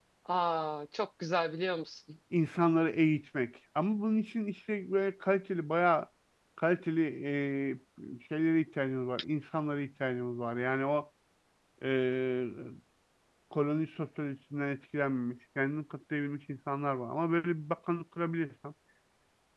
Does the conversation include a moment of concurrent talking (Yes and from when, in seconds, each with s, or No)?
No